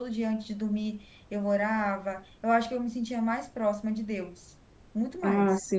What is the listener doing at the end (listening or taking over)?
listening